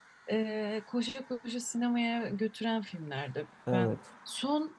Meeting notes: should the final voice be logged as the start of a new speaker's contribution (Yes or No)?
No